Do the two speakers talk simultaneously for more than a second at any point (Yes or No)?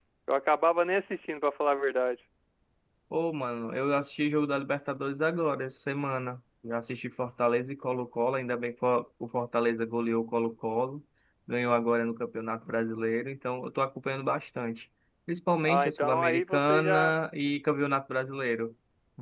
Yes